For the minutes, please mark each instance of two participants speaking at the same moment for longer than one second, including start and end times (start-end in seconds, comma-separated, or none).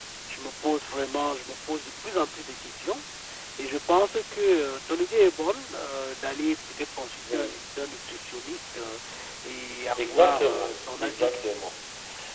10.0-11.3